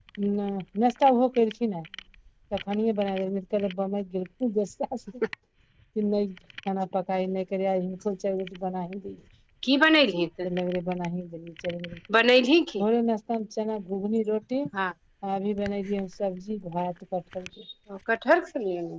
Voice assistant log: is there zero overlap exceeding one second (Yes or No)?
Yes